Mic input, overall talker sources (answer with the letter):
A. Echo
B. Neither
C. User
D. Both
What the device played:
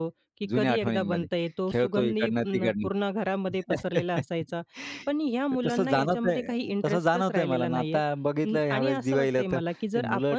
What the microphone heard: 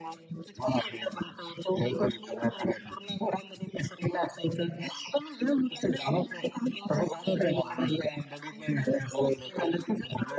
A